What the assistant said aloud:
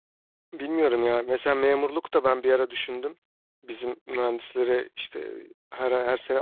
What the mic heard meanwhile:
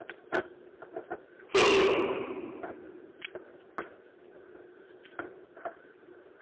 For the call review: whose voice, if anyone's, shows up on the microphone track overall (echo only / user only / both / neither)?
user only